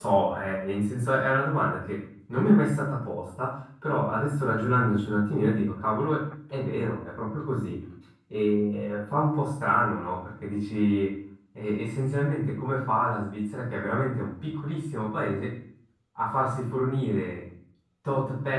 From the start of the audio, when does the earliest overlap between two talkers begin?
none

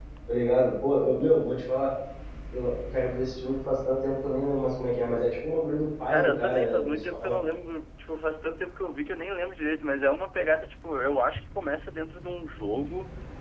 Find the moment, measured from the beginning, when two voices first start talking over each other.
6 s

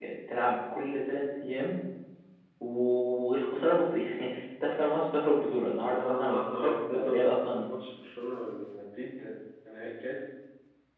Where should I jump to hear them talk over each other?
6 s

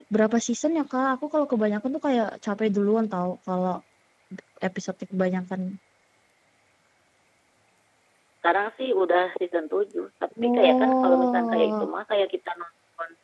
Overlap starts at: 10 s

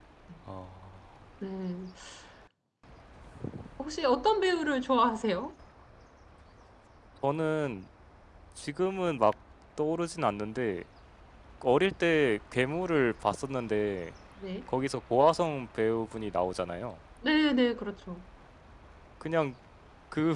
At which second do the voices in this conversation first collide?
none

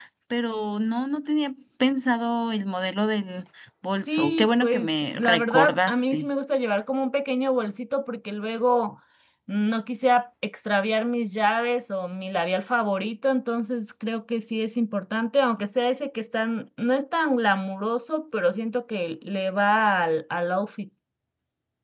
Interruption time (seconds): 4 s

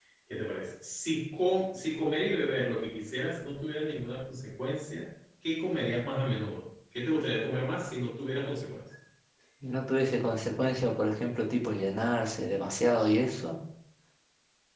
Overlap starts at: none

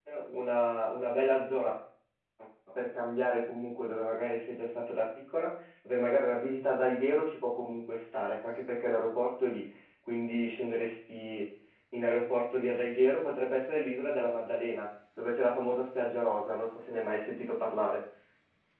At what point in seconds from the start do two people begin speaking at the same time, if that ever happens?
none

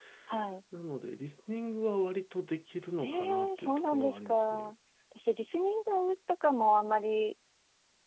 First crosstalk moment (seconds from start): 3 s

